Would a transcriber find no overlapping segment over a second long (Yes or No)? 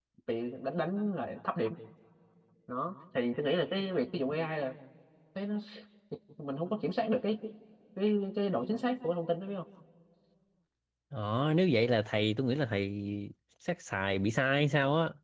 Yes